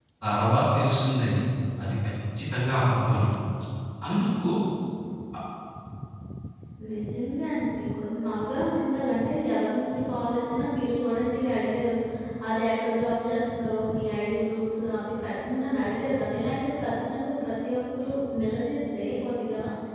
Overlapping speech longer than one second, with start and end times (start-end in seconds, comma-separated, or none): none